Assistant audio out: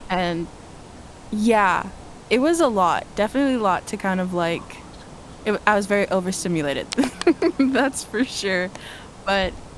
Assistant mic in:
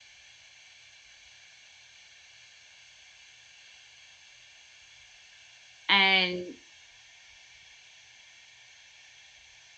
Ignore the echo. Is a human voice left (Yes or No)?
Yes